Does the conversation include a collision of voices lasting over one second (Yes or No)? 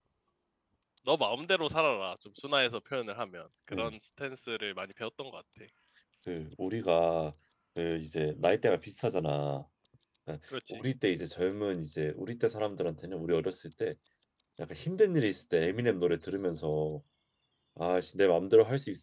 No